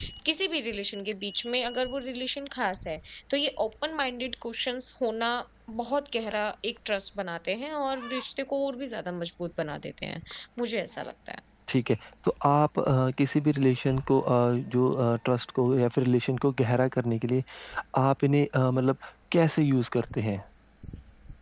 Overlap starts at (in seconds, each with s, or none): none